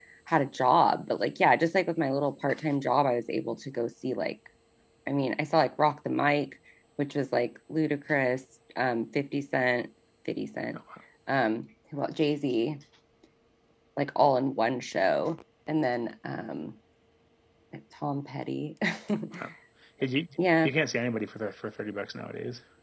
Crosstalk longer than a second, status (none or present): none